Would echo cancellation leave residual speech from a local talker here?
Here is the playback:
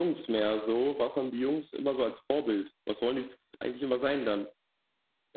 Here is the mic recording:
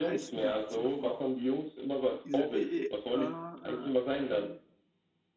Yes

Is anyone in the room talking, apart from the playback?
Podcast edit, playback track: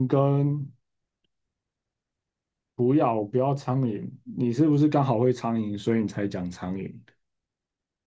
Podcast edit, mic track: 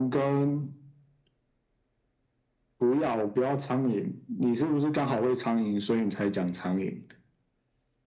No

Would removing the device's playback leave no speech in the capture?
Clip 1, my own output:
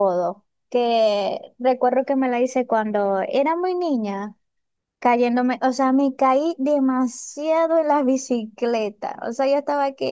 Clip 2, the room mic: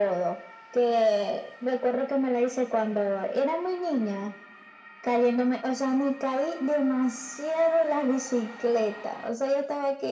Yes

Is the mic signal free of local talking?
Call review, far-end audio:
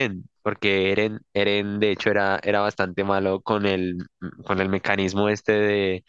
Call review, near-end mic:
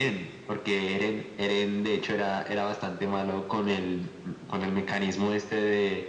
Yes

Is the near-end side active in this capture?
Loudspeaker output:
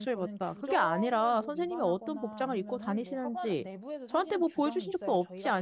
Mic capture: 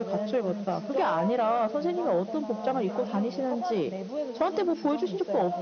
Yes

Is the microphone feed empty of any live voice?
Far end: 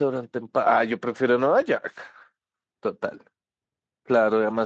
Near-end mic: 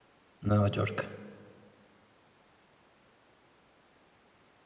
No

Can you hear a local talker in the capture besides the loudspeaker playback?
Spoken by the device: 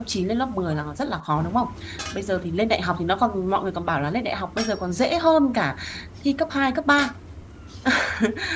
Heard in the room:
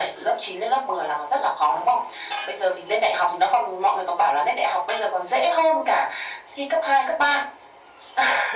No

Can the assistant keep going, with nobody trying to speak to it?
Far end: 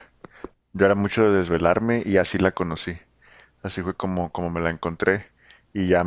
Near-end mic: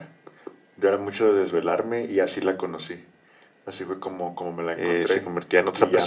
No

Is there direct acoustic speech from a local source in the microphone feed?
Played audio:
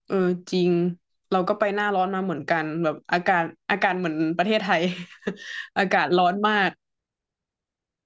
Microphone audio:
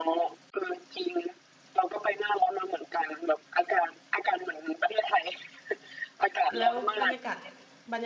Yes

